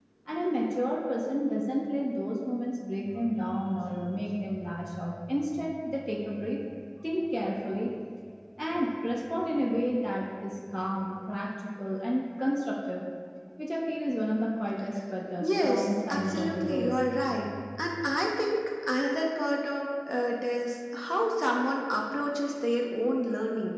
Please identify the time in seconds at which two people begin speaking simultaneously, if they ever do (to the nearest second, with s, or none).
15 s